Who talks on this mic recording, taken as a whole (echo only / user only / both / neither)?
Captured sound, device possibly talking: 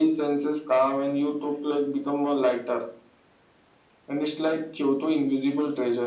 echo only